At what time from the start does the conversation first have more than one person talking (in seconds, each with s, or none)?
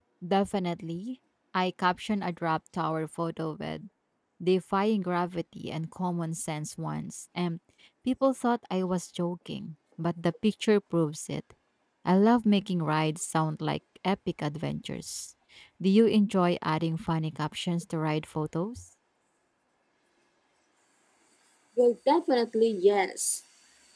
none